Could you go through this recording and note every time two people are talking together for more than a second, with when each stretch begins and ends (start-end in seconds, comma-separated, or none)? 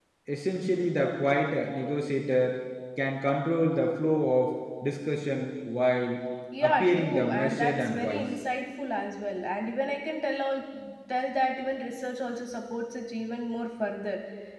6.6-8.2